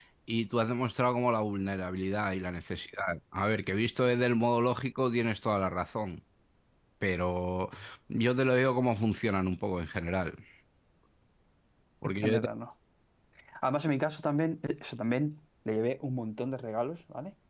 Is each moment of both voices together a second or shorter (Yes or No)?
Yes